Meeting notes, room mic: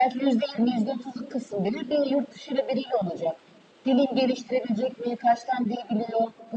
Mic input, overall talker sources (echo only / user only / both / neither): echo only